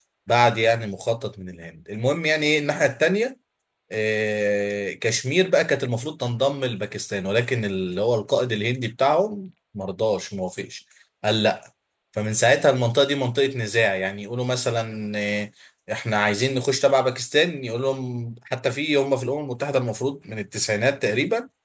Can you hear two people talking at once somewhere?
No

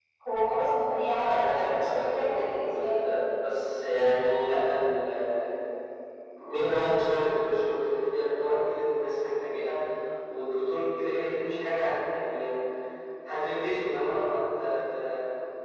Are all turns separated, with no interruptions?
No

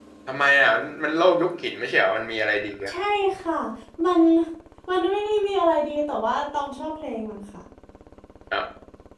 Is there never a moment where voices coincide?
Yes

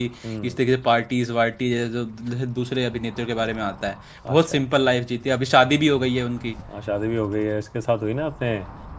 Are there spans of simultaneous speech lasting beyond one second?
No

